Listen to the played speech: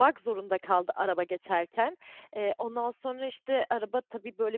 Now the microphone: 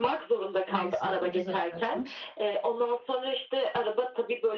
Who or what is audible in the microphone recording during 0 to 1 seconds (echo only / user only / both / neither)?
both